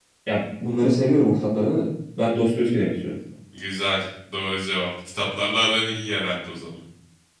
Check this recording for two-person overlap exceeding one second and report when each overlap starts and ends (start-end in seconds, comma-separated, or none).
none